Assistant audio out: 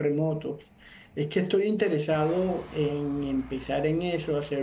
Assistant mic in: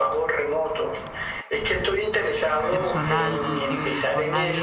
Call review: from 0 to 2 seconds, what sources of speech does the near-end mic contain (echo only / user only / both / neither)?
echo only